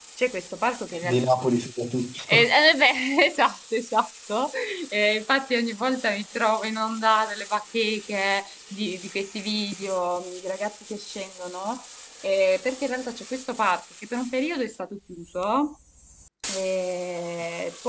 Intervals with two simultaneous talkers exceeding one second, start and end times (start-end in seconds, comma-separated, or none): none